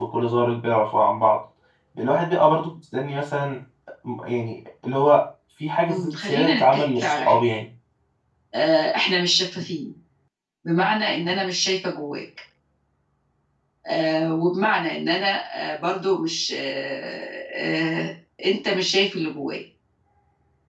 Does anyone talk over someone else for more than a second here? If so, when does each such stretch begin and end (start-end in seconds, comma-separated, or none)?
5.9-7.4